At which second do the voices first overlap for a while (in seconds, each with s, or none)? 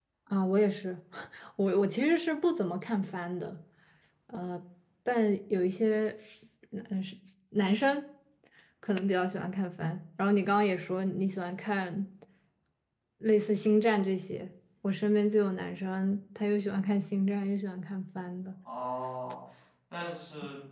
none